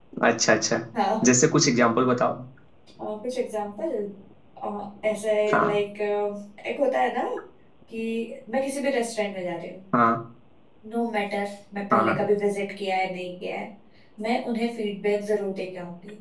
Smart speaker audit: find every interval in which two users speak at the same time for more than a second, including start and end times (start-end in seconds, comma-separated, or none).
none